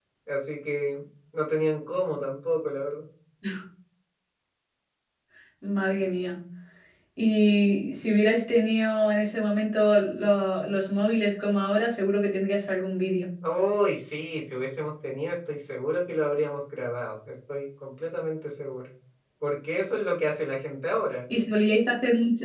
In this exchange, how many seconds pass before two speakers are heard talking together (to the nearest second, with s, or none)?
none